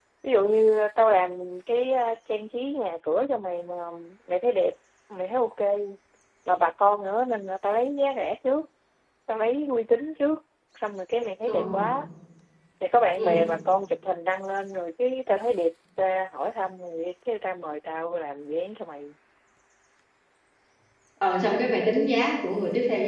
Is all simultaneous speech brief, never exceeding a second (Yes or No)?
Yes